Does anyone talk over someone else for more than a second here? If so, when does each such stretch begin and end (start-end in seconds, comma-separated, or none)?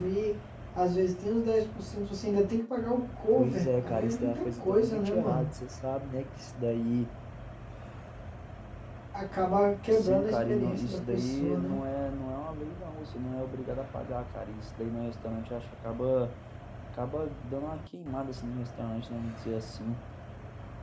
3.3-5.5, 9.9-11.8